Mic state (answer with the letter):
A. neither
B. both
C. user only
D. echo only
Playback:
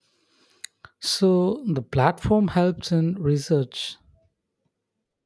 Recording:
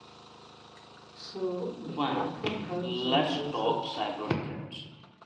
B